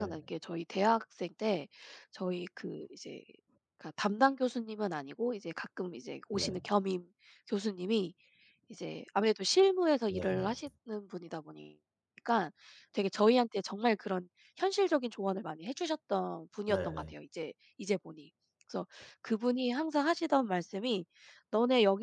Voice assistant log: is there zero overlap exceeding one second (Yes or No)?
Yes